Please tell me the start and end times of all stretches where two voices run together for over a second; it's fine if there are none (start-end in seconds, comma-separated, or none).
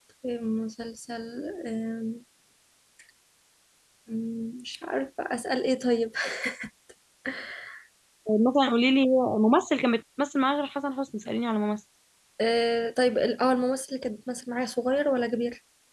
none